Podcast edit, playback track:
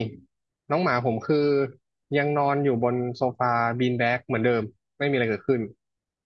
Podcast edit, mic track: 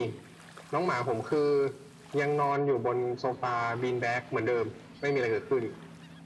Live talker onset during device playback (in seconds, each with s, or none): none